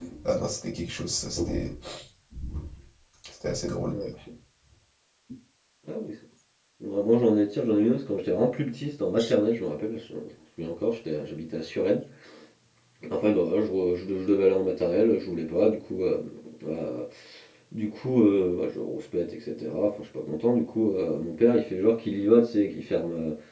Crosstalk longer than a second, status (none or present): none